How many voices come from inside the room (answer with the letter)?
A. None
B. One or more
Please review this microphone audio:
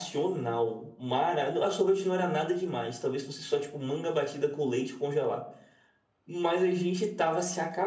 A